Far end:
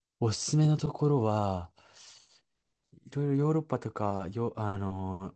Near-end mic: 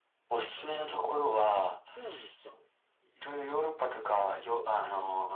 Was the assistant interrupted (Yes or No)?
Yes